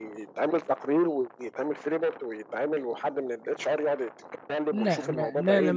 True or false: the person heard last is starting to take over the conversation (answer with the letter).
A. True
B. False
A